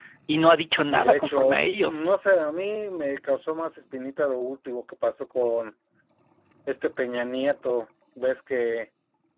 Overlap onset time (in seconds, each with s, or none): 0.9 s